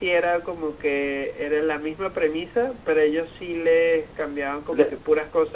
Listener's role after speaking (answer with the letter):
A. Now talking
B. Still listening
B